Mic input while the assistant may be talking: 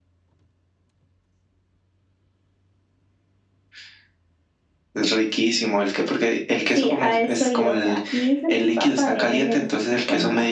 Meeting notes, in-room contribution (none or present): none